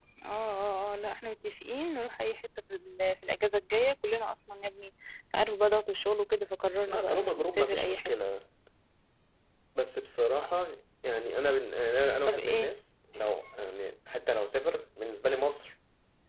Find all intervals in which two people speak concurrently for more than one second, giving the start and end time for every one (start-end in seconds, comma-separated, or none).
6.9-8.1